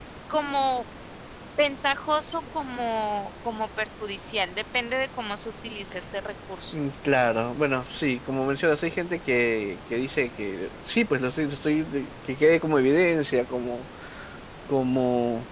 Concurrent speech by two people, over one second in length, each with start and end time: none

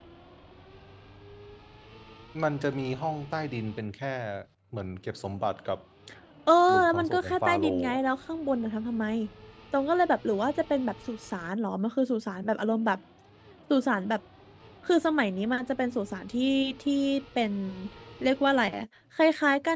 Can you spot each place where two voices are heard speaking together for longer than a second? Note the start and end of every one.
6.7-8.0

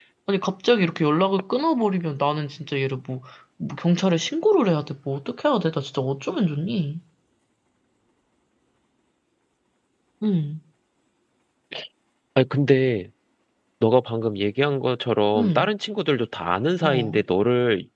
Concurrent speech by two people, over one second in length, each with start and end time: none

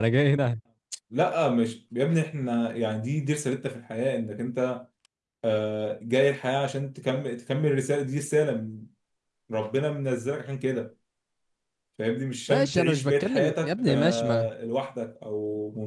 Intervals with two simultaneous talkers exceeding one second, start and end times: 12.5-14.5

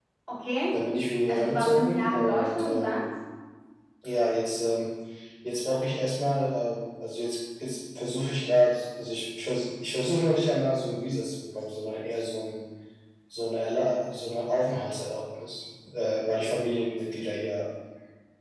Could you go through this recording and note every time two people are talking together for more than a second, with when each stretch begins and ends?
1.3-3.0

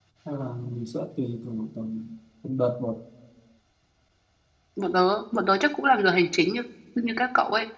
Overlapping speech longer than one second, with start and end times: none

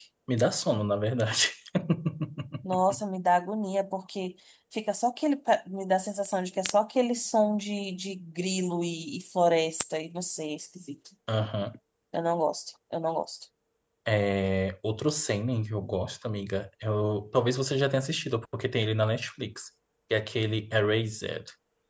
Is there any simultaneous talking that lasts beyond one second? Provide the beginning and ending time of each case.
none

